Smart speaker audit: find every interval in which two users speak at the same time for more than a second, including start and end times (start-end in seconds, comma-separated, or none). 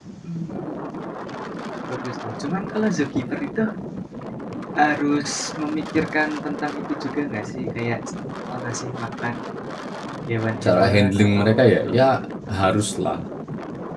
10.6-12.0